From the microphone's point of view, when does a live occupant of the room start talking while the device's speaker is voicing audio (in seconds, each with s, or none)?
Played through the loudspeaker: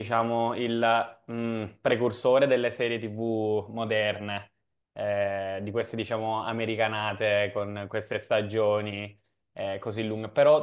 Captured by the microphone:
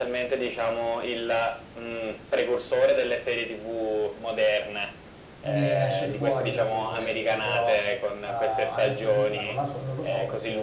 5.4 s